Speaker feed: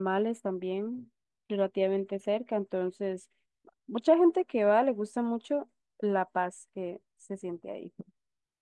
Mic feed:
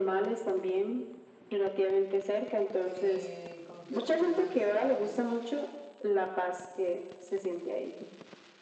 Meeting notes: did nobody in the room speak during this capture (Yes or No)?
No